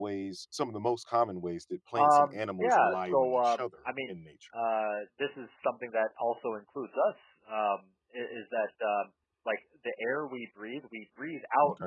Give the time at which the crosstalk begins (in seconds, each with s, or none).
1.9 s